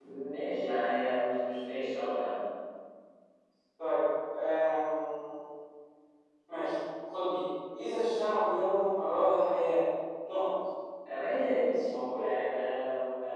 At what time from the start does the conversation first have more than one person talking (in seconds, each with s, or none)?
none